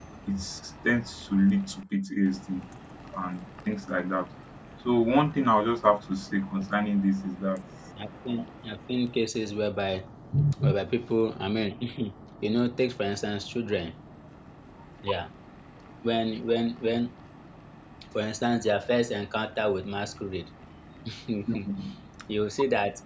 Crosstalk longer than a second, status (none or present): none